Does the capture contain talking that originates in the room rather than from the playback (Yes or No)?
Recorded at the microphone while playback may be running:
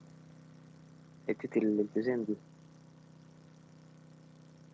Yes